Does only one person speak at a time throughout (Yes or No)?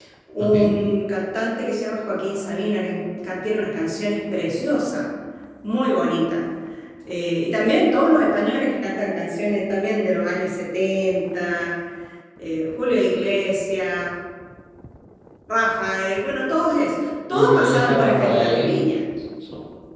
No